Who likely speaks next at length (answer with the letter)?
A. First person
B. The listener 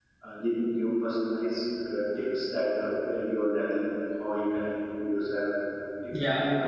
A